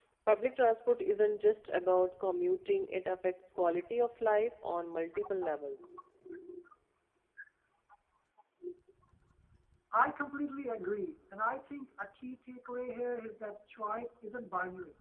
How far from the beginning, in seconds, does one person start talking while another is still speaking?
none

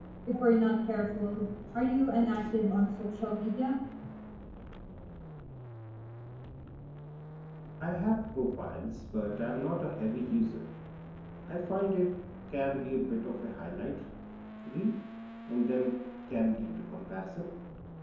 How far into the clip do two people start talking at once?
none

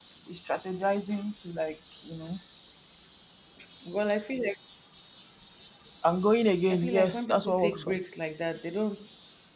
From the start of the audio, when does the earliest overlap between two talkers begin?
6.7 s

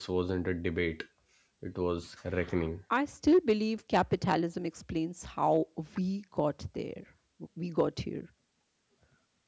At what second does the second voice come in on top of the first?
none

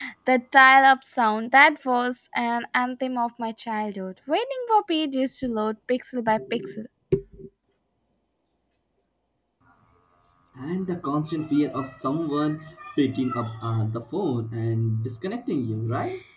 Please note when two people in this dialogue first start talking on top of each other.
none

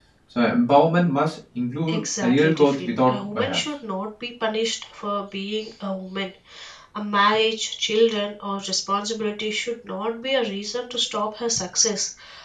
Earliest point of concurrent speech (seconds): 1.9 s

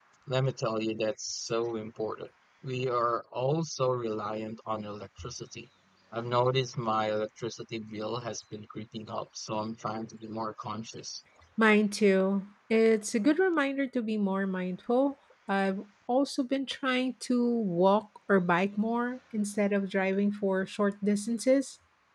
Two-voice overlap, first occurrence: none

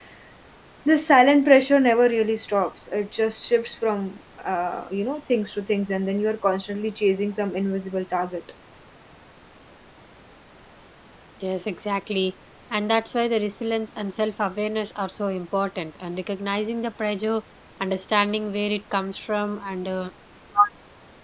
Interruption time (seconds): none

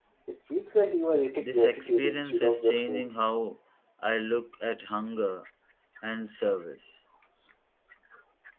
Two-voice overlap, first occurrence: 1.4 s

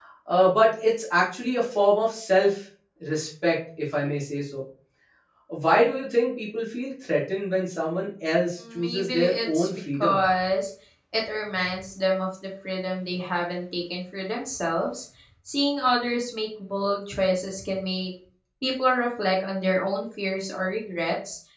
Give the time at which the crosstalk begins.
8.6 s

